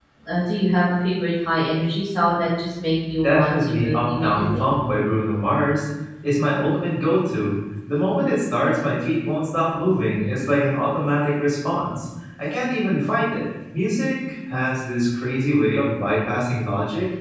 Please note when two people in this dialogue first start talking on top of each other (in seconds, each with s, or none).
3.2 s